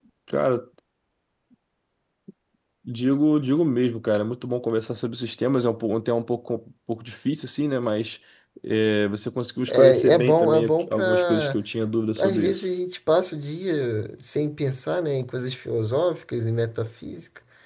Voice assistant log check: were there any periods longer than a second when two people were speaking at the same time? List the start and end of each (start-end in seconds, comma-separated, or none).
9.7-11.6